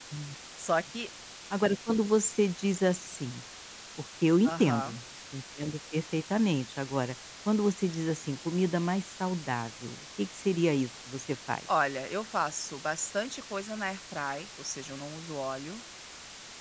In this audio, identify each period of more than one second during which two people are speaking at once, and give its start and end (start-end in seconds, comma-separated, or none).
none